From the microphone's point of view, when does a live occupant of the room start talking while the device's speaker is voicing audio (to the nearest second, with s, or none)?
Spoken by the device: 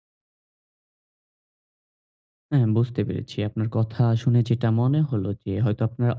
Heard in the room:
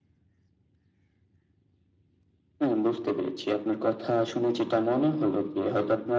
none